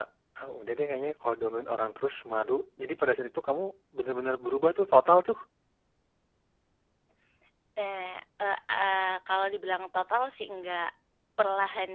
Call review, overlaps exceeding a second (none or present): none